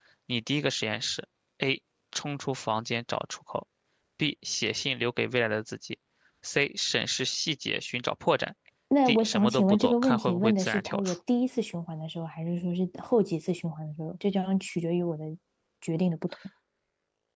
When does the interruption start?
9.1 s

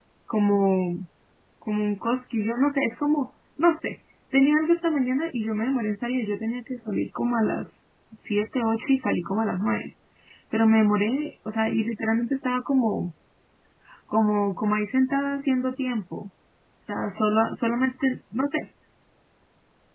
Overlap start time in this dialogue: none

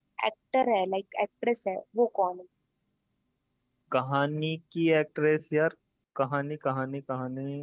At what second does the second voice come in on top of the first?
none

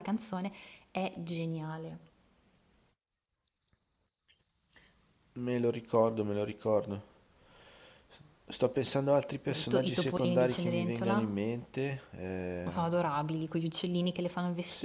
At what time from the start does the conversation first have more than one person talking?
9.5 s

